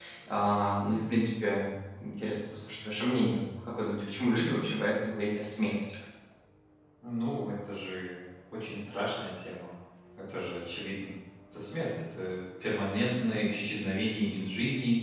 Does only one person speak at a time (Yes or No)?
Yes